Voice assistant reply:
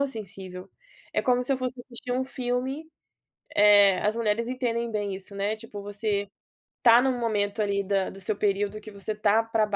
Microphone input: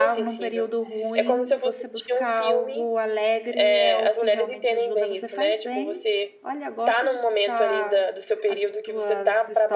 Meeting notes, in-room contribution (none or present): present